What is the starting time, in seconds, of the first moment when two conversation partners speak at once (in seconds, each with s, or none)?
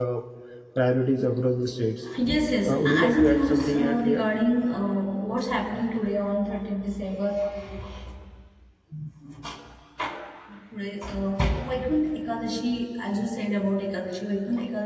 2.7 s